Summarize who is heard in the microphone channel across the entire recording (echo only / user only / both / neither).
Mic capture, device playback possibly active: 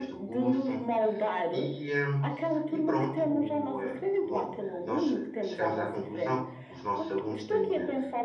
both